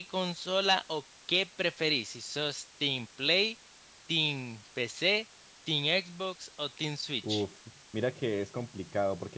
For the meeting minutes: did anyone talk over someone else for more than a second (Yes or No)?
No